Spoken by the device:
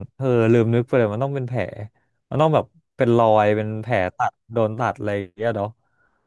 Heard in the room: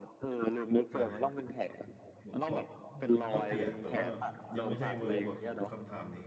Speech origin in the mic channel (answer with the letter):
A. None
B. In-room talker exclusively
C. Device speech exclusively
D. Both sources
D